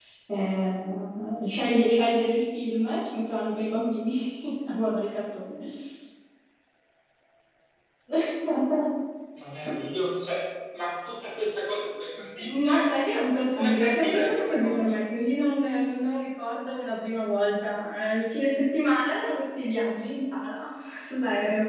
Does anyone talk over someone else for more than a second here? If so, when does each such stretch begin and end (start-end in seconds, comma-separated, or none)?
13.5-15.0